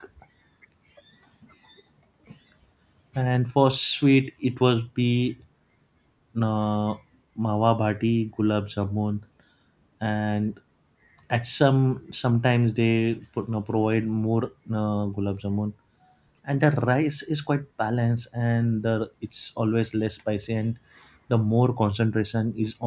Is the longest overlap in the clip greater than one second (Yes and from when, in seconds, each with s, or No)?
No